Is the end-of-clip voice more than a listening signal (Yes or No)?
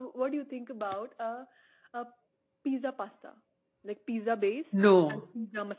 No